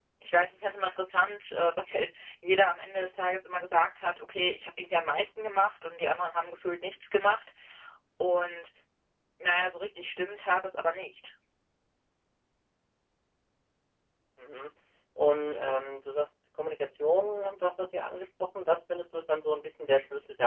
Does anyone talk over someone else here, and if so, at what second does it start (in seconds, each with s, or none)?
none